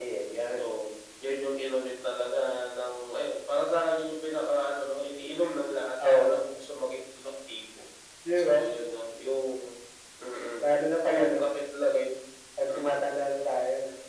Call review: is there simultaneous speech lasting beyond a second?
No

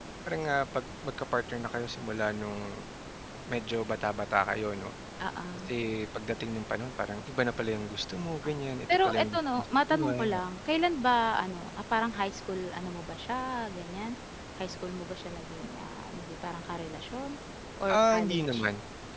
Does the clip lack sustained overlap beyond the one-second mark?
No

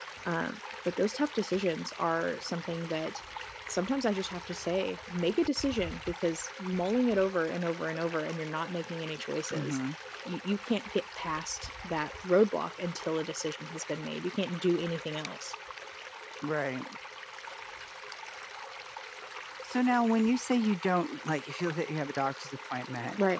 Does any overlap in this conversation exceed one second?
No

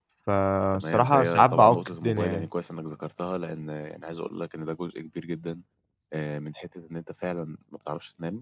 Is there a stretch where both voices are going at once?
Yes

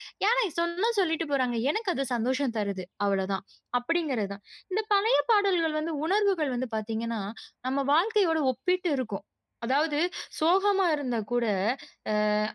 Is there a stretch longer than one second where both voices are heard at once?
No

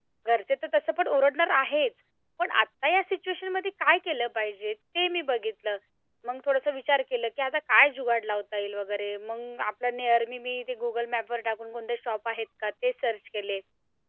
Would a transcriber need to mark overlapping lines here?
No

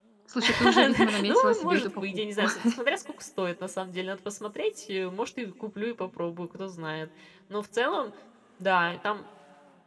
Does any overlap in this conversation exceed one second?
Yes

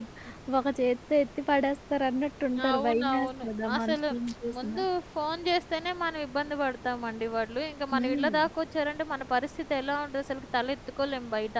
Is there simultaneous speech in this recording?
Yes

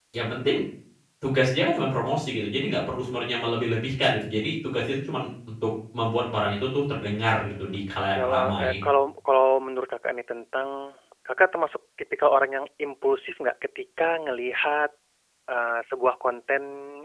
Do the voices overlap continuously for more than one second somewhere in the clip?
Yes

